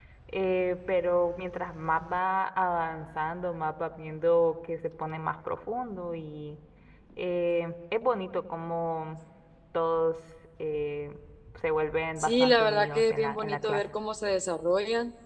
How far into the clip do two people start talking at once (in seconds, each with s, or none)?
12.2 s